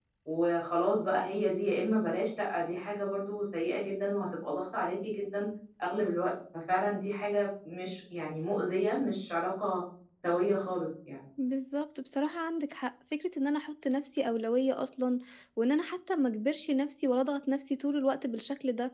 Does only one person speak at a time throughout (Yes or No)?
Yes